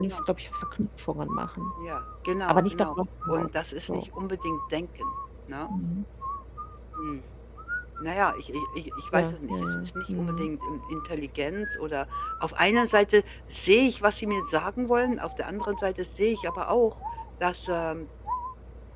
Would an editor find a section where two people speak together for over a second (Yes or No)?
Yes